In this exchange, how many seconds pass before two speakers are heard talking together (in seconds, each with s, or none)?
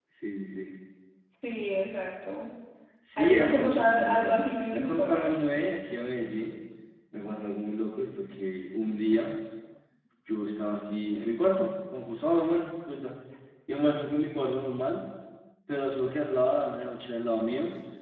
3.2 s